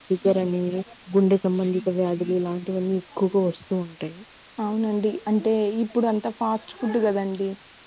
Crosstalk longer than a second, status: none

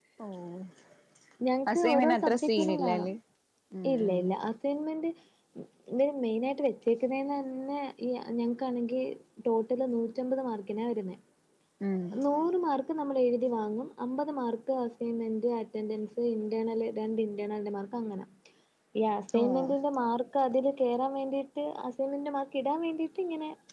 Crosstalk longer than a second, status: present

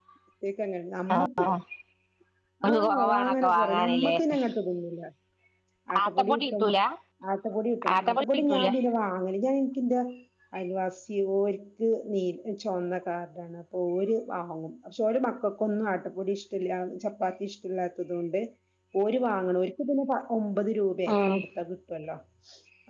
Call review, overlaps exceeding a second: present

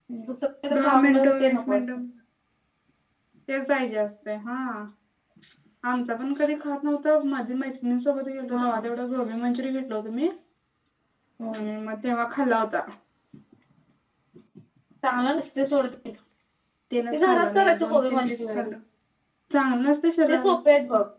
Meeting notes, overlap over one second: present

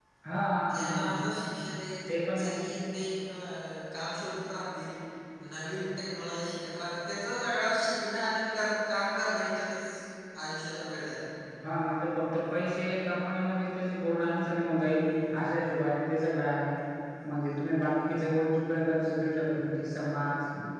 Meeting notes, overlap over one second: none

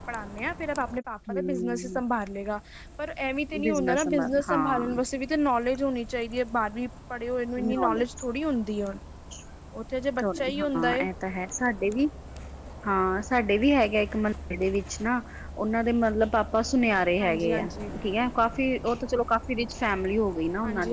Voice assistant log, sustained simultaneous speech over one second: present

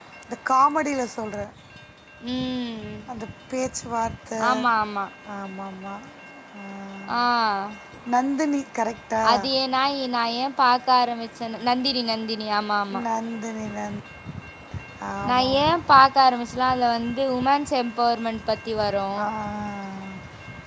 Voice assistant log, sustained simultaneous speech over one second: none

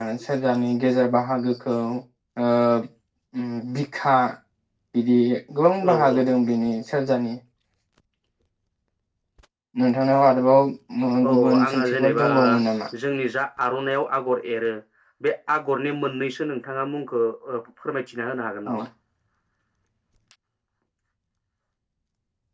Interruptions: present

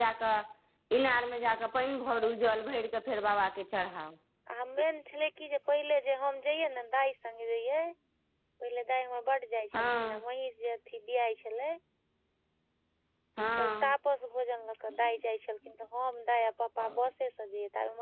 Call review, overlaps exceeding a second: none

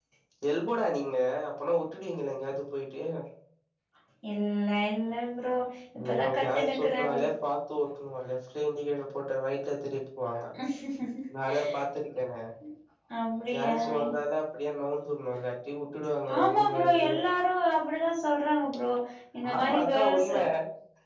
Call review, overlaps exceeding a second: present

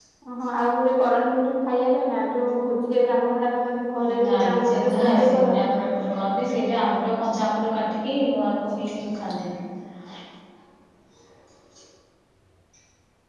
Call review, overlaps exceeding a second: present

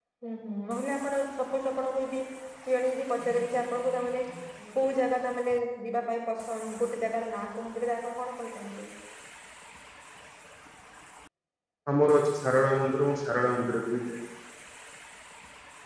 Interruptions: none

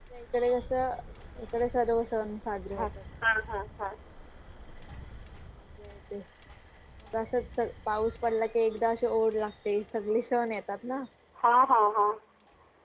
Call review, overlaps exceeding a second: none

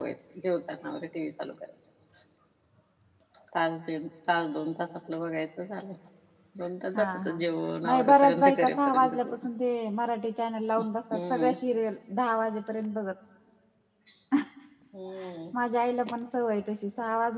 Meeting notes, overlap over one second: present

